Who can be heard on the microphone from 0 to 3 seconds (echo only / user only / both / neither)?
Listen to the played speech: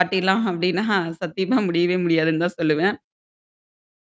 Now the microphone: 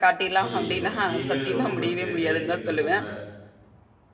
both